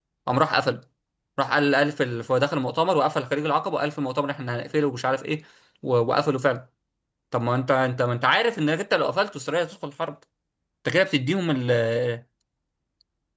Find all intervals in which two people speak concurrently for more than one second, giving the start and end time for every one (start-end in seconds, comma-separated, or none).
none